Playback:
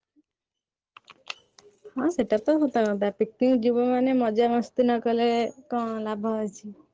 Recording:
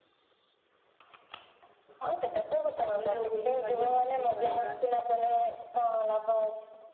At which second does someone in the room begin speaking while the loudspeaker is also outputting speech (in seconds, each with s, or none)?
3.0 s